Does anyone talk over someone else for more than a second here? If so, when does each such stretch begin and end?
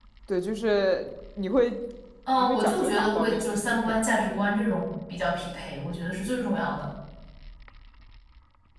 2.4-4.0

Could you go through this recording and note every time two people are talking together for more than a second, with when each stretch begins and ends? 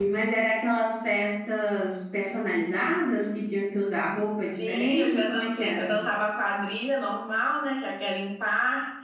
4.6-6.1

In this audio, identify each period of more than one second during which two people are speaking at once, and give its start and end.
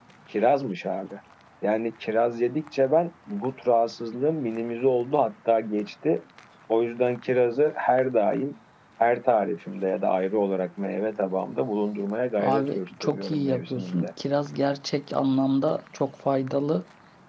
12.4-14.1

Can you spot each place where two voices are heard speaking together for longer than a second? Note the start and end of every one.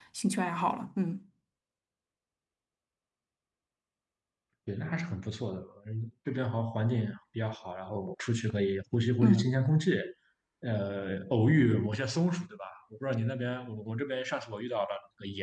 none

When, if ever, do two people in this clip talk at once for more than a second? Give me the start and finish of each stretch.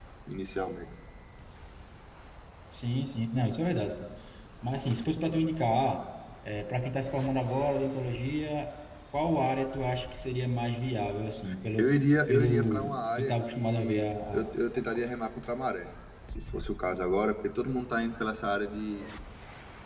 12.3-14.5

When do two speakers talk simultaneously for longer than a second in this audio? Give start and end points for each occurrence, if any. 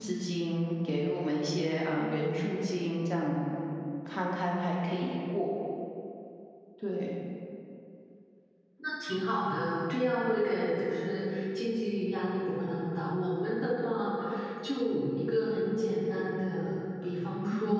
none

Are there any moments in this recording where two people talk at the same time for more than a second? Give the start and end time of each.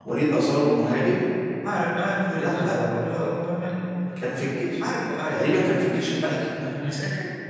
none

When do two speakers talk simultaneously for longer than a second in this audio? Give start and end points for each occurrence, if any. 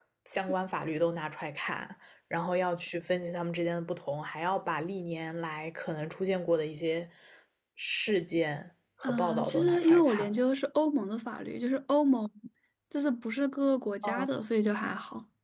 9.0-10.3

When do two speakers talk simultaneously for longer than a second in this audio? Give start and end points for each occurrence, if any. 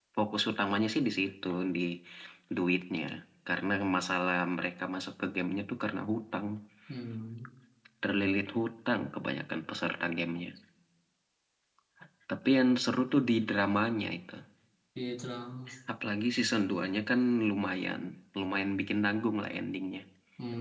none

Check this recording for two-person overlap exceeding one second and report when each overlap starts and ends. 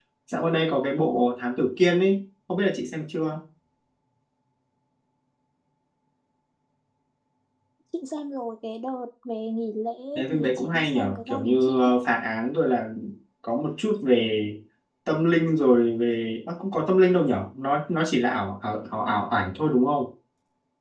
10.2-11.9

